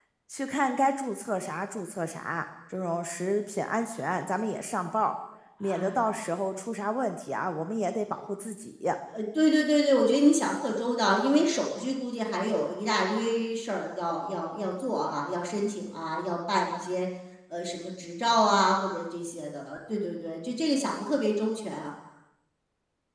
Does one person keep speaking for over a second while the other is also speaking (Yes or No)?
No